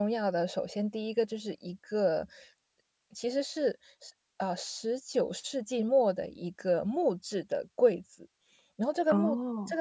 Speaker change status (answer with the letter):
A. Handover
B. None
B